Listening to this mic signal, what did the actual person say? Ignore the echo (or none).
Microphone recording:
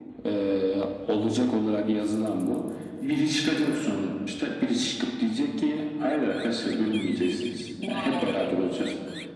wow.